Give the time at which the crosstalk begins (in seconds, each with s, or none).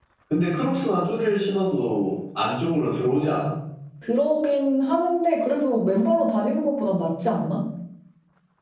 none